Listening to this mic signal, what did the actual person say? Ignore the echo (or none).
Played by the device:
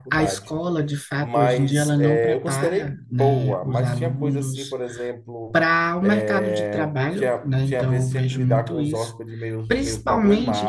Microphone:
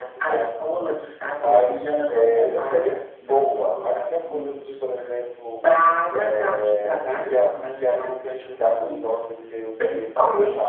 none